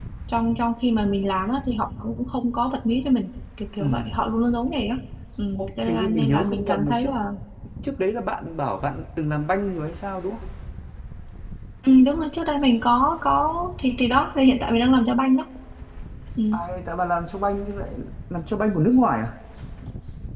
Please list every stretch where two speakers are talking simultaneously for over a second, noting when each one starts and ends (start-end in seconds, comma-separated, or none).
5.5-7.1